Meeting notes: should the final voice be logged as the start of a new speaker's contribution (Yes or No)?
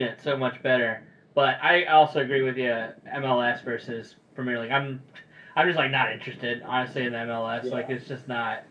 No